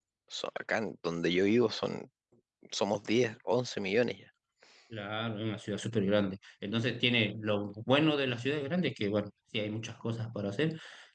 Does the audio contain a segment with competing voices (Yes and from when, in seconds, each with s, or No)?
No